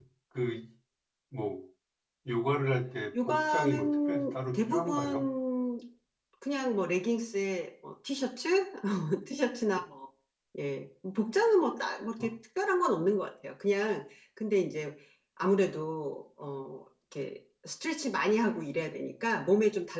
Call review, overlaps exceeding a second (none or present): present